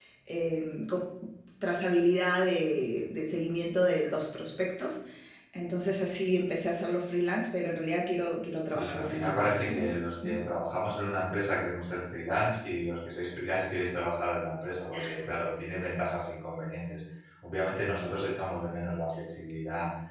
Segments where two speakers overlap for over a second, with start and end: 8.7-10.3

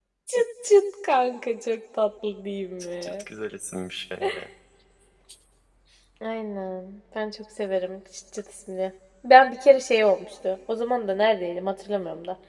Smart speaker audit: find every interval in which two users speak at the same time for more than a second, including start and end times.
none

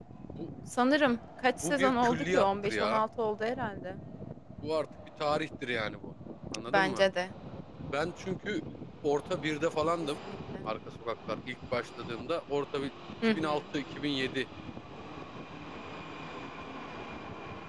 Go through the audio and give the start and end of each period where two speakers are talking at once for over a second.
1.6-3.0

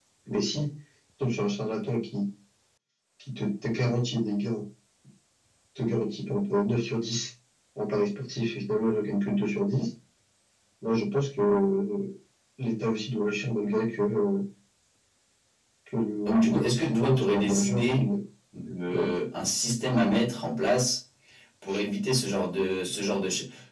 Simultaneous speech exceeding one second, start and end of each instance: 16.2-18.1

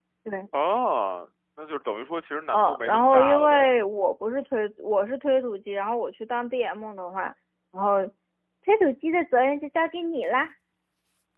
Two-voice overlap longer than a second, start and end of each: 2.5-3.7

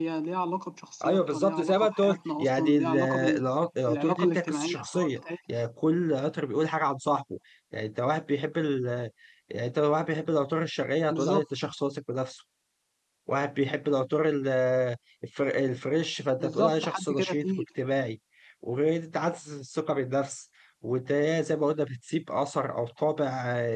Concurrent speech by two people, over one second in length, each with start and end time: 1.0-3.4, 3.9-5.1, 16.4-17.6

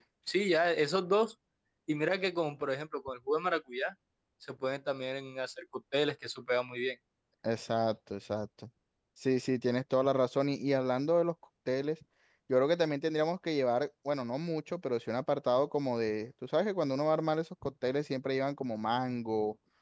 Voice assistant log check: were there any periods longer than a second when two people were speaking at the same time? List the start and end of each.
none

